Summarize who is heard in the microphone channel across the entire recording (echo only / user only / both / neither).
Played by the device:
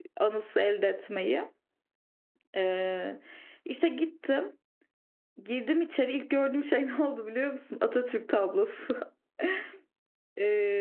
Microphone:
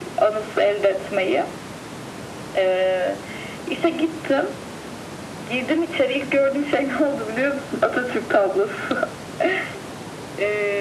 echo only